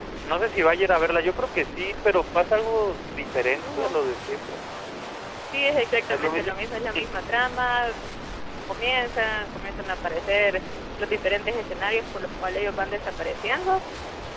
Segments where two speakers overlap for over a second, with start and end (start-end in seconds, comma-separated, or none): none